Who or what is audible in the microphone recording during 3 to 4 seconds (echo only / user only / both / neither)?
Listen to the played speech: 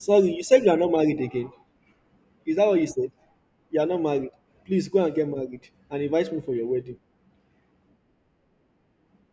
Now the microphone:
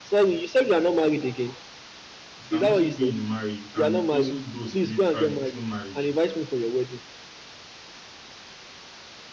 both